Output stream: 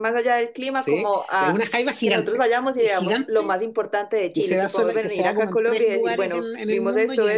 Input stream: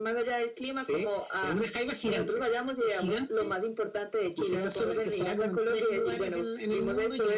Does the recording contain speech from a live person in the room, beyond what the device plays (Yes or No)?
No